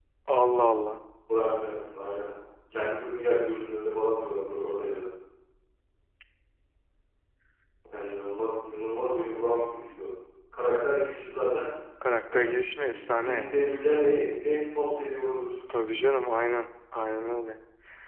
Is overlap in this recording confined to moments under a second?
No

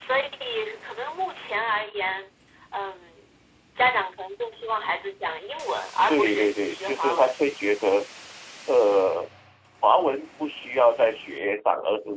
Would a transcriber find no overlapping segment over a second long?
No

